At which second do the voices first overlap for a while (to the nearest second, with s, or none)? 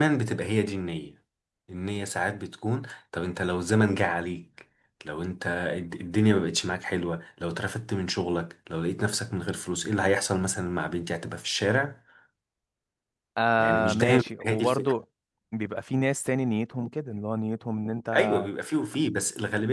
14 s